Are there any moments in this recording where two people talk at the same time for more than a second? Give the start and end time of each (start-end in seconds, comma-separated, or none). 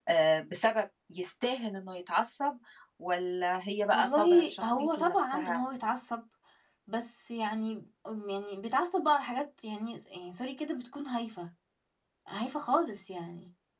3.9-5.6